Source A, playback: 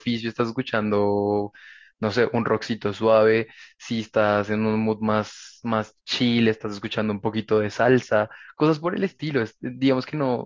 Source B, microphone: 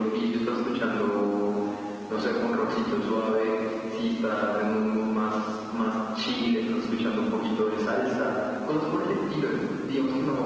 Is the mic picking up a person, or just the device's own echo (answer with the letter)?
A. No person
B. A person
A